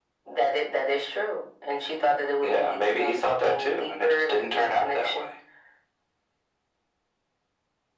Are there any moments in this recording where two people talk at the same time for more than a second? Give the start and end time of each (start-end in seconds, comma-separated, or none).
2.4-5.1